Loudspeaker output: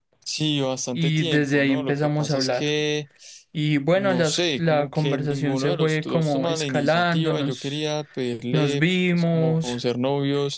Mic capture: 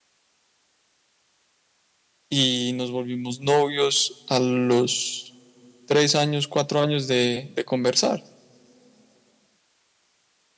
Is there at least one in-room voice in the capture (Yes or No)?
Yes